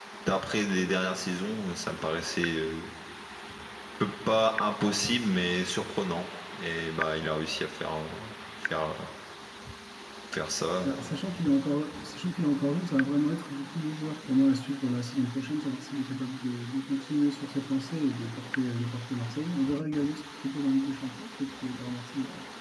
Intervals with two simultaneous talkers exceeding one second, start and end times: none

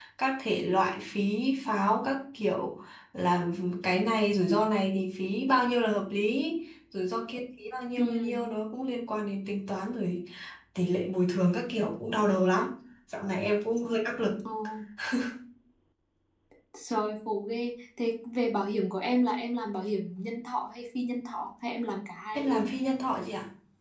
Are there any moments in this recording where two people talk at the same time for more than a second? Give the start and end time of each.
none

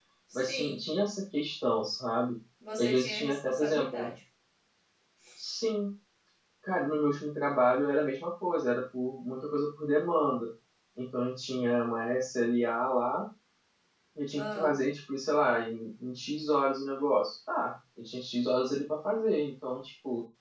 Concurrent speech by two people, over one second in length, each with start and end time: 2.8-4.1

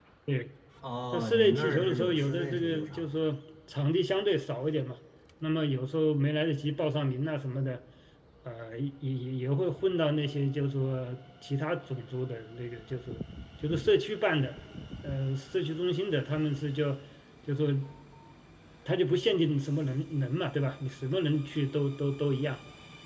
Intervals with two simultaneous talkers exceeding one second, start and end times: 1.1-3.0

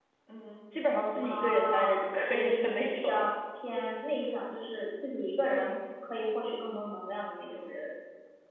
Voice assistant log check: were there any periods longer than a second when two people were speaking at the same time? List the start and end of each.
1.2-3.3

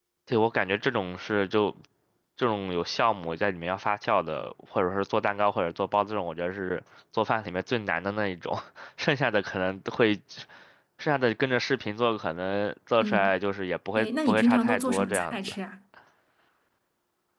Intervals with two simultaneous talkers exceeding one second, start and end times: 14.0-15.6

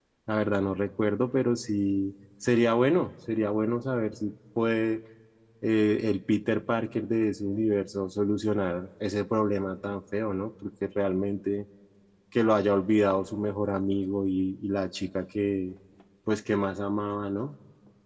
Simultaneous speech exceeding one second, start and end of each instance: none

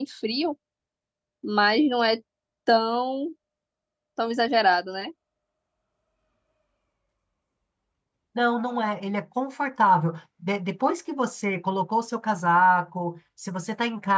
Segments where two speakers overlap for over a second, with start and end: none

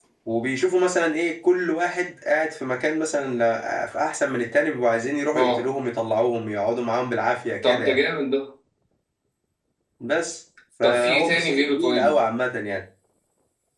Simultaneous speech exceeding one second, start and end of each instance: 10.8-12.1

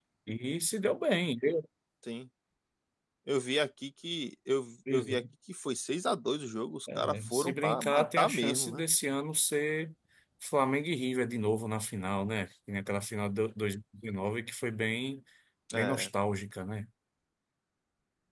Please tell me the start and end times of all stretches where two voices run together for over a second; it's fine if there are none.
7.0-8.8

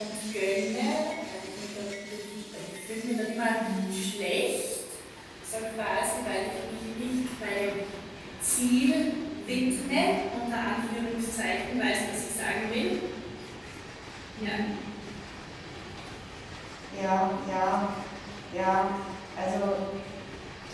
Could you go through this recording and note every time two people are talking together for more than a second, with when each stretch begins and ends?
none

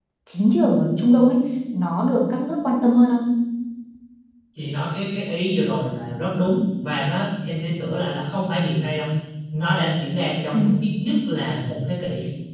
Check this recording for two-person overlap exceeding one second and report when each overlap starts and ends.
none

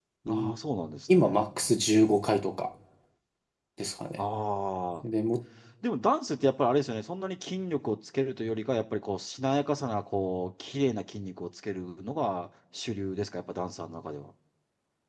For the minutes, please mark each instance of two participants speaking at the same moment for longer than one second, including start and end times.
none

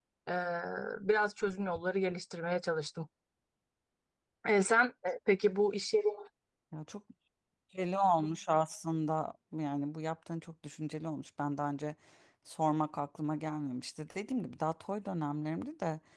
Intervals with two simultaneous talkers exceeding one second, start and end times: none

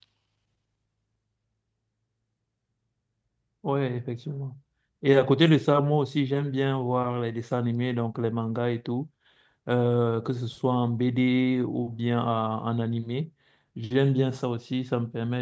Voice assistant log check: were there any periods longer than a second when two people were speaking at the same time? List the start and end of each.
none

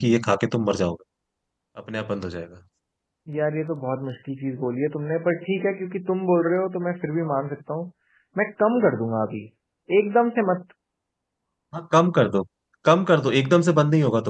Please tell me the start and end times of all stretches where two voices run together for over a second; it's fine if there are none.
none

